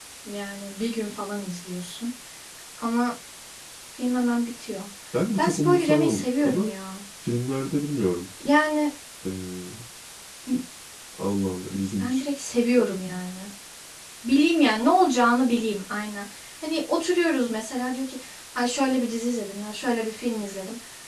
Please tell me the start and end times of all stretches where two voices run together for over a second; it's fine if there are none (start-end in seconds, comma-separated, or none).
5.4-6.7